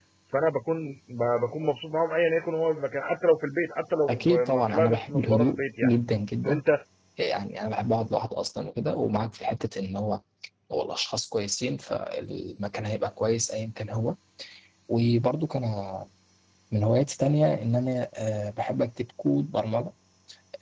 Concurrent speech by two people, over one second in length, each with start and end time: 4.1-5.9

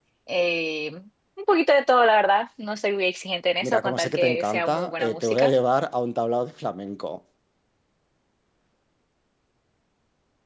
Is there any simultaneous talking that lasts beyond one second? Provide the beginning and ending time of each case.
3.6-5.5

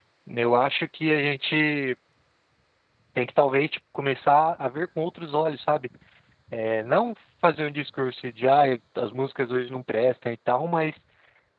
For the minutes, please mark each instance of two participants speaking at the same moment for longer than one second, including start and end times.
none

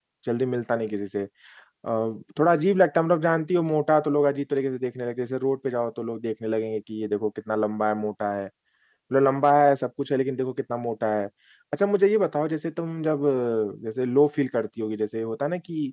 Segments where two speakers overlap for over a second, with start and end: none

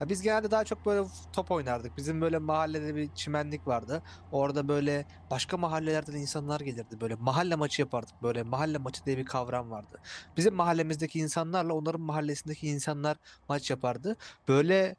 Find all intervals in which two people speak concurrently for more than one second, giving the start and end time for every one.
none

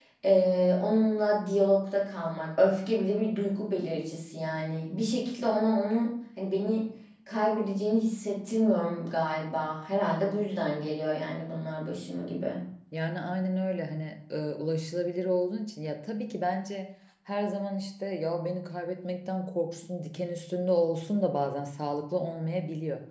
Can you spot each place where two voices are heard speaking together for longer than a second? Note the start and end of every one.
none

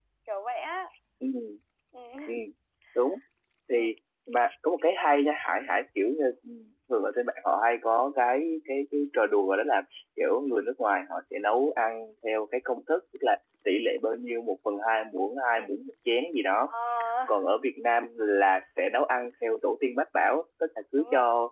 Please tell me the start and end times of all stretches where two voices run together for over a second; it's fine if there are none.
none

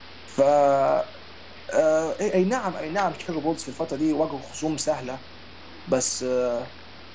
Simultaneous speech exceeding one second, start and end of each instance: none

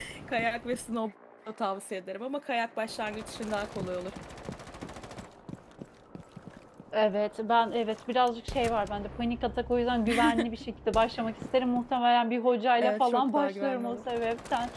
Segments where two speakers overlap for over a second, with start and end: 12.8-14.0

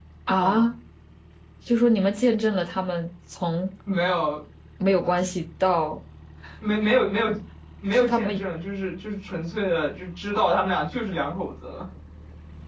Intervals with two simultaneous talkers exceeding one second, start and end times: none

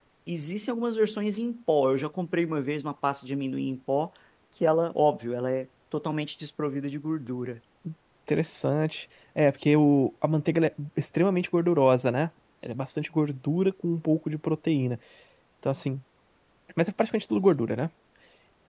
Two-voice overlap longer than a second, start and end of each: none

